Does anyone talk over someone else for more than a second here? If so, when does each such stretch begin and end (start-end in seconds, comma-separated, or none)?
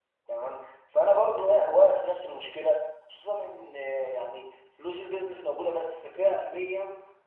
none